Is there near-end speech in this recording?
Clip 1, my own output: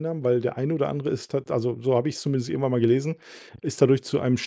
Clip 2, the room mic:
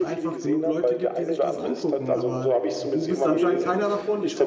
Yes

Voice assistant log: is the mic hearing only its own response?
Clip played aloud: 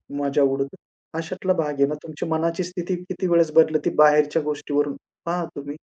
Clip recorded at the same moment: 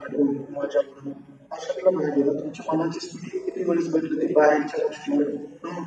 Yes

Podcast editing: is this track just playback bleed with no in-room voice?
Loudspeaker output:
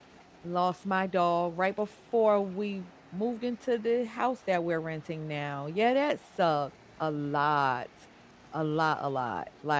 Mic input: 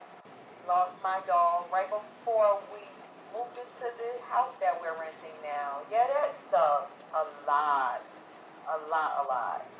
Yes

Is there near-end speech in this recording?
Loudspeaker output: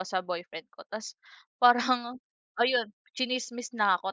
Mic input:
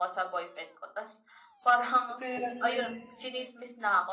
Yes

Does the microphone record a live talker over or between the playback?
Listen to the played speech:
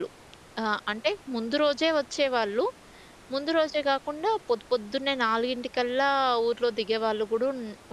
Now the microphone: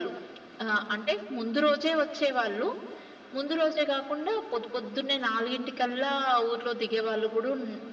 No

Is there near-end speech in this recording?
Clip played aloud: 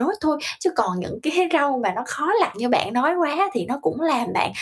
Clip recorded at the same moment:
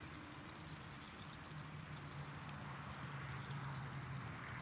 No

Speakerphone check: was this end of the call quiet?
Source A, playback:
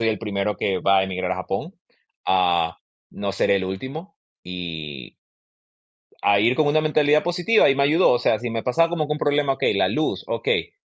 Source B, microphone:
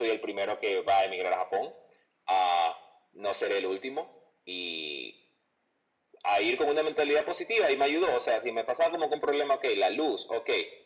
Yes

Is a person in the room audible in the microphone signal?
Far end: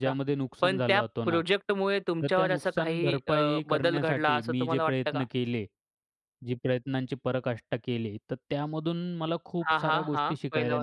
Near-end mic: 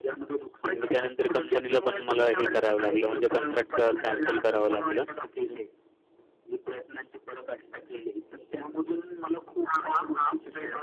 Yes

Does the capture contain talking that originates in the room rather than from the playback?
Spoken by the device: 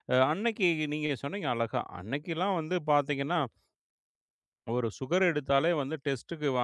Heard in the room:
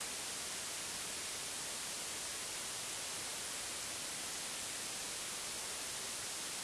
No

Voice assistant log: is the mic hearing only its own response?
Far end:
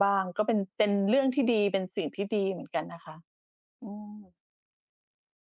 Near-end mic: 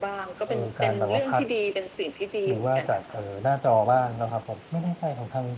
No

